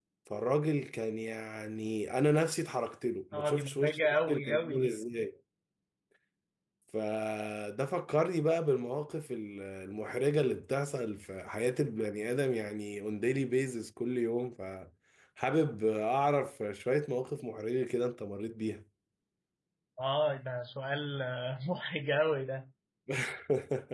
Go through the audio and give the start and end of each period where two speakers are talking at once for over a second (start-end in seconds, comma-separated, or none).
3.3-4.9